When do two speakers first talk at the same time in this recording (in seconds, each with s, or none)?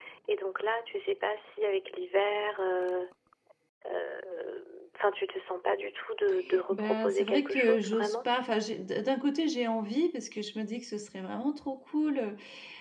6.7 s